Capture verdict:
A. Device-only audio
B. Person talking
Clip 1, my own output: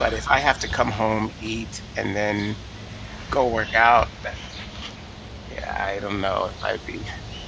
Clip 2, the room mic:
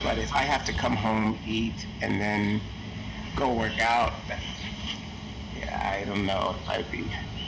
A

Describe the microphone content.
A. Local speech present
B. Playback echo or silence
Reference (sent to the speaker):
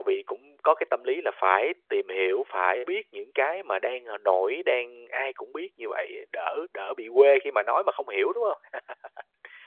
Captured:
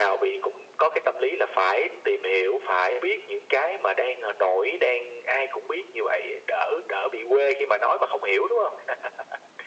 B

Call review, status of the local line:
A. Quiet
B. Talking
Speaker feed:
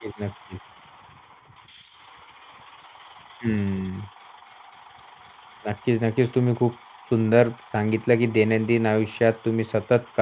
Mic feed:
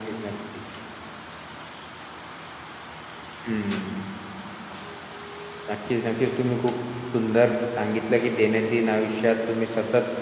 A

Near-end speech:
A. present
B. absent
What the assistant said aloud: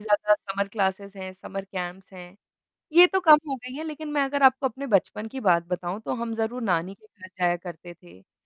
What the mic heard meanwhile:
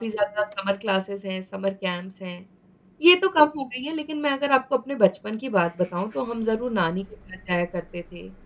B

